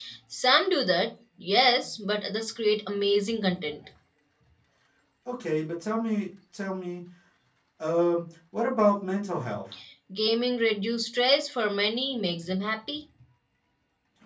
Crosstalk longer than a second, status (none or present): none